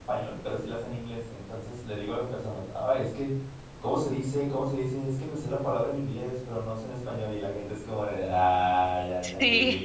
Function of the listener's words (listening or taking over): listening